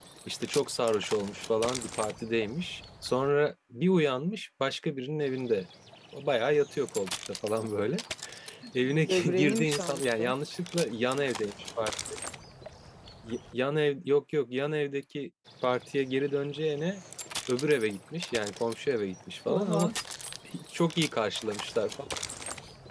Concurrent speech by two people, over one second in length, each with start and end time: 8.8-10.3

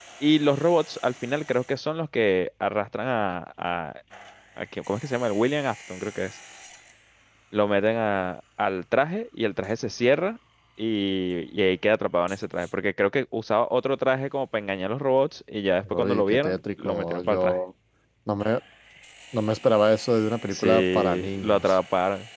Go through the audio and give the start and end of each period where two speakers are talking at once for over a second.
15.8-17.6, 20.5-21.8

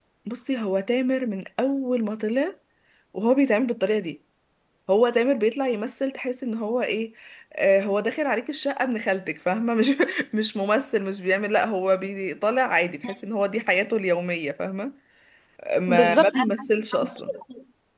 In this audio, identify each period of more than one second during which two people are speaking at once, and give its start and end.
15.9-17.3

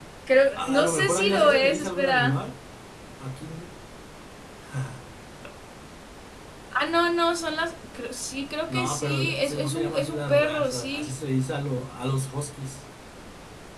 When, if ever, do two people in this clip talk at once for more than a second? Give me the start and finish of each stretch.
0.6-2.4, 8.7-11.1

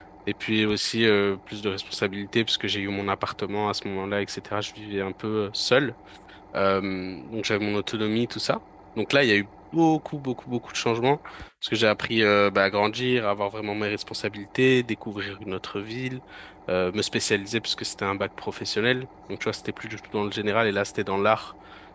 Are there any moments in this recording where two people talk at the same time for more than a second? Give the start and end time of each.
none

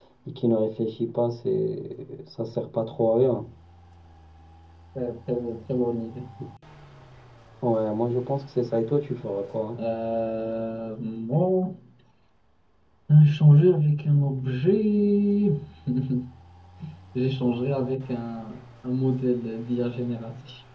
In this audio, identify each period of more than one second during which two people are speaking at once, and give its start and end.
none

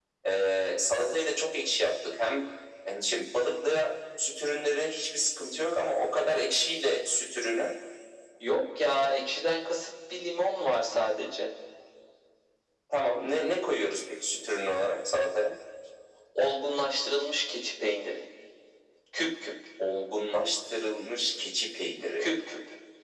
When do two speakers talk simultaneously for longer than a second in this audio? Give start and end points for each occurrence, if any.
none

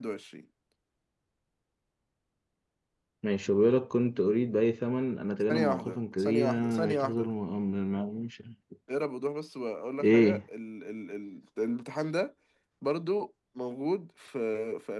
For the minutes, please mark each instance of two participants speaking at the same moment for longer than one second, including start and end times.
5.5-7.3

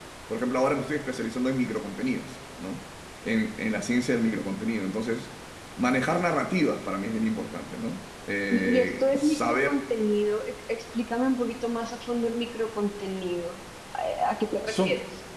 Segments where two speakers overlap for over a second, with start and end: 8.5-9.7

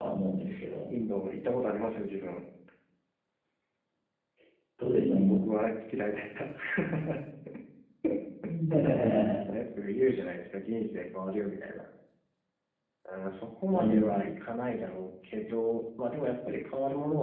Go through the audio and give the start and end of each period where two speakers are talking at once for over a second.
none

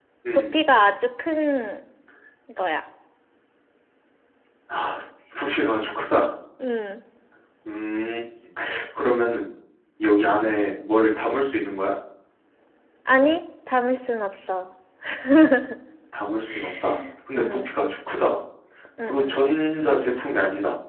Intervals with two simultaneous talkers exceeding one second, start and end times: none

